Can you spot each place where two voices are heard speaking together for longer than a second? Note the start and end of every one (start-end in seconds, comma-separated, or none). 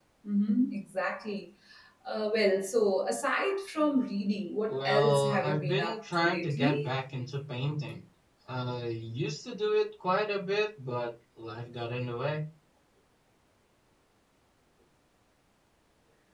4.7-6.9